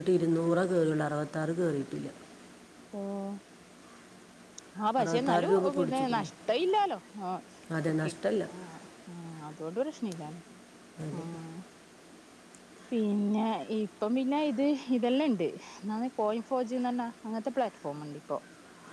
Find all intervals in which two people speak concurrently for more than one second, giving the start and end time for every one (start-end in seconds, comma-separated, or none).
5.0-6.3